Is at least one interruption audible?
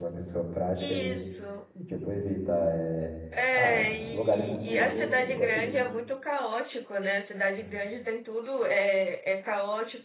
Yes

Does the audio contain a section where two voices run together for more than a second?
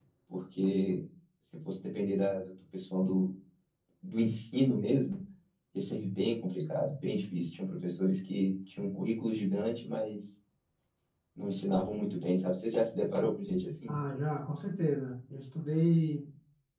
No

